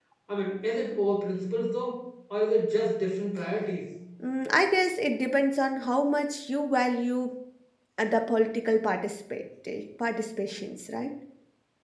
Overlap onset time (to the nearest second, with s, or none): none